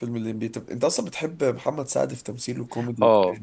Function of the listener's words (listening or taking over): taking over